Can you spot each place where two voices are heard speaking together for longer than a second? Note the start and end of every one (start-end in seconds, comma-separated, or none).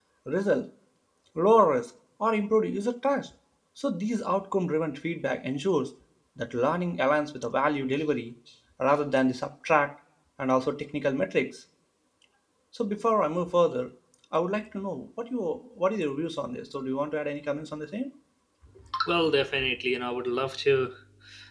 none